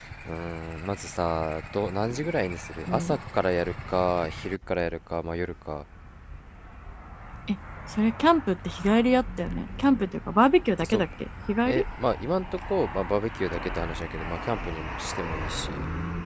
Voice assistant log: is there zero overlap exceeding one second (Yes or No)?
Yes